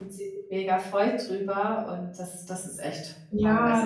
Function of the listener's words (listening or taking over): taking over